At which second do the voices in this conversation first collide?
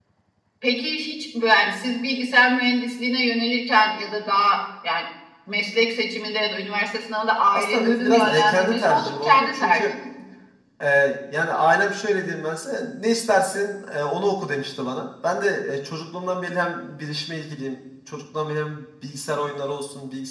7.5 s

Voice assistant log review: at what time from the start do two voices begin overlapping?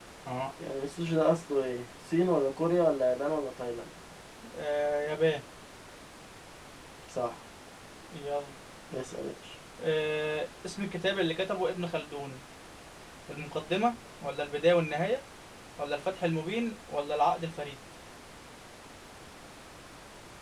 none

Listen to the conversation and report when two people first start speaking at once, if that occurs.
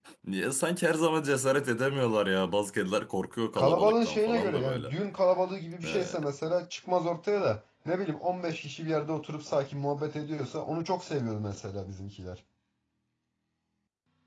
3.6 s

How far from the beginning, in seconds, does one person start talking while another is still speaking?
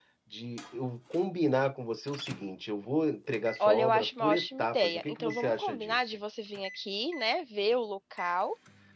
3.6 s

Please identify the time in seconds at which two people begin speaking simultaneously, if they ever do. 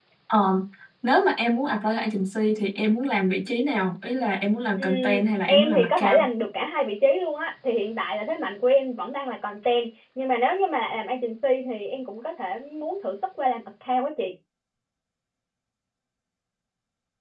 4.8 s

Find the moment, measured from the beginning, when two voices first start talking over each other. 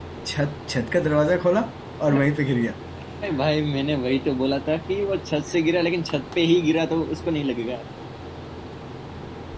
none

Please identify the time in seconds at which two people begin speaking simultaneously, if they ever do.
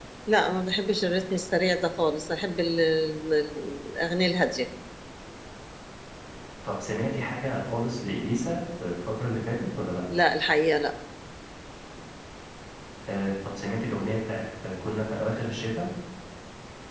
none

